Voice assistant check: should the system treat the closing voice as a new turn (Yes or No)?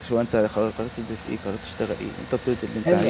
Yes